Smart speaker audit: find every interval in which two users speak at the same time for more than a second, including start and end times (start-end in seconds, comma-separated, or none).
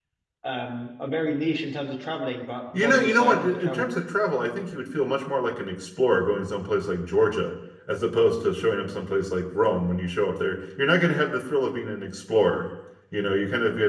2.7-4.0